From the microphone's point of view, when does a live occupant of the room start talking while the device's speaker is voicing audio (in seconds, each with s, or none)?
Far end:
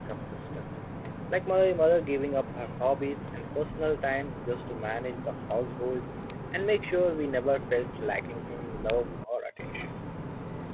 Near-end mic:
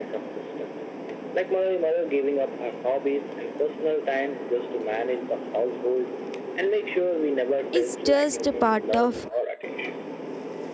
7.7 s